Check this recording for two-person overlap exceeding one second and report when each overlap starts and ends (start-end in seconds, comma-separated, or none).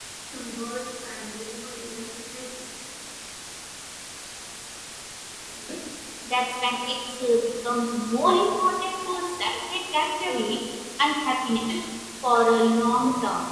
none